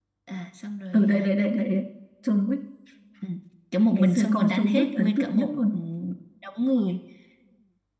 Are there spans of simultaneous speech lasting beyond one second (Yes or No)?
Yes